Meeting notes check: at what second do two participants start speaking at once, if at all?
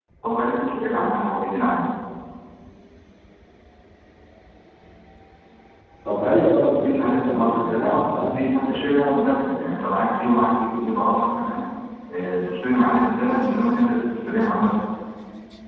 7 s

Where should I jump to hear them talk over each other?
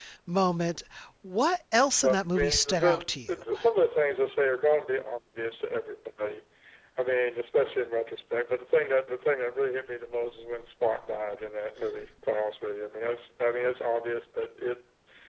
2 s

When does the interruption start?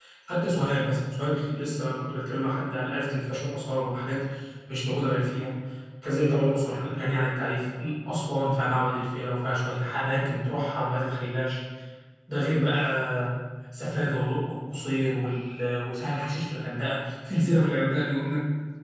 none

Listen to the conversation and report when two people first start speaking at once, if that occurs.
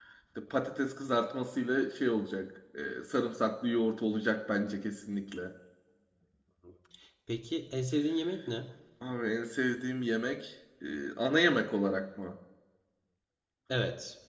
none

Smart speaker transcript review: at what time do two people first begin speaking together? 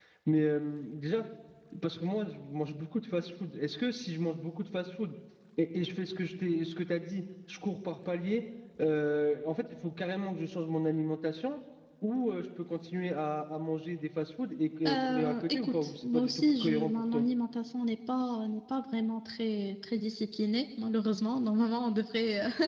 15 s

